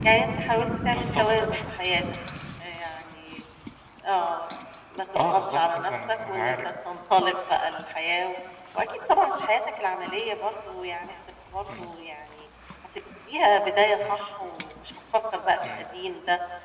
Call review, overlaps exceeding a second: present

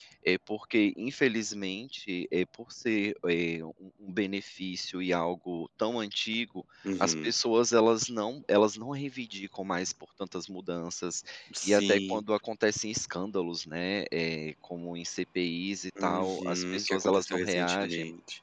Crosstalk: present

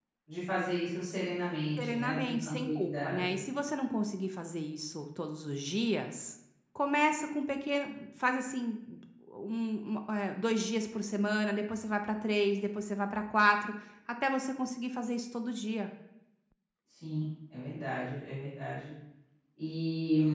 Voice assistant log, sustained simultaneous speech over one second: present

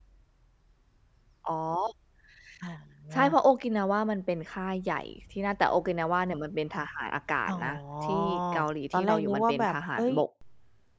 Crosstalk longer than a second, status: present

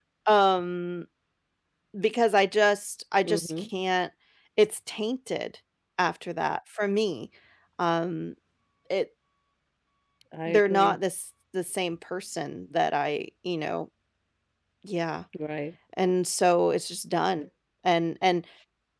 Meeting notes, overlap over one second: none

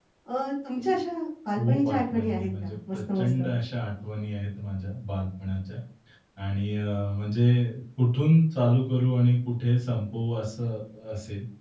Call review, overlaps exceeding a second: present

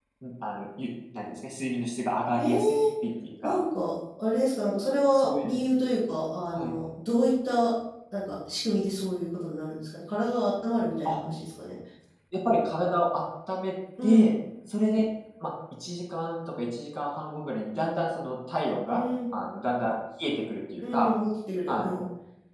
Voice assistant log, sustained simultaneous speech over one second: none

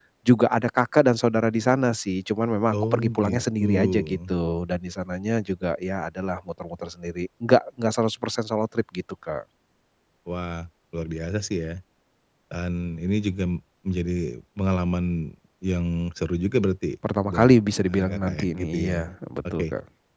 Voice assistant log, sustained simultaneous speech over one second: present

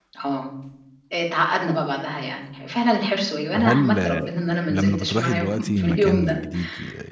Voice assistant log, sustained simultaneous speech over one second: present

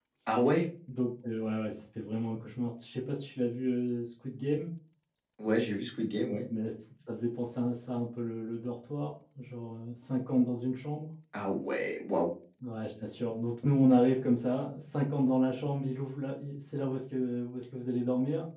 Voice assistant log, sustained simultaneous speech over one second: none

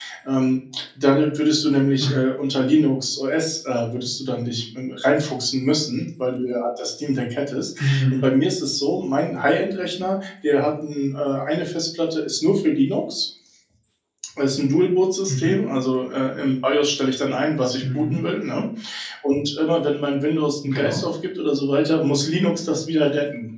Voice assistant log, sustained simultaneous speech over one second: none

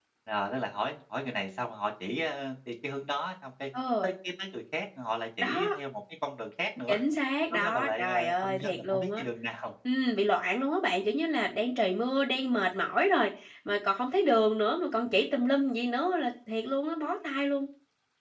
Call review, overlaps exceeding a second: present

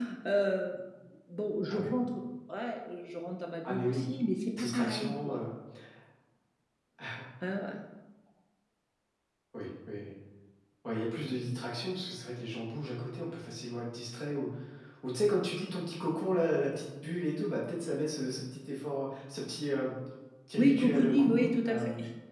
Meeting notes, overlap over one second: present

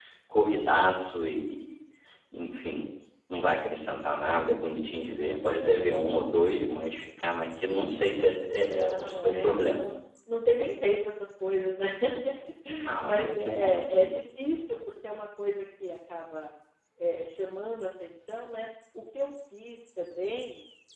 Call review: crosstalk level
present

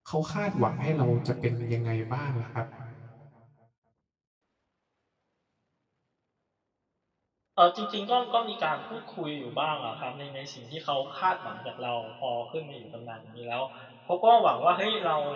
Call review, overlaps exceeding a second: none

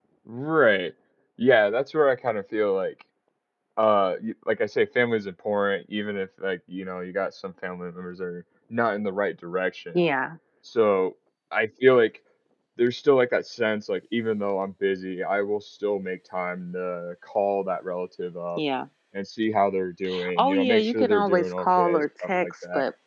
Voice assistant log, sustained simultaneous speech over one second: present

